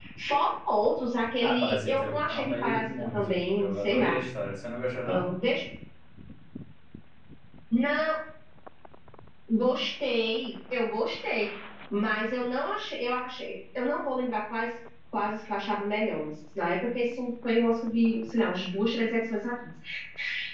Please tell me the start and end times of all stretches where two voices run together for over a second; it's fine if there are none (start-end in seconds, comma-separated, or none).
1.4-4.2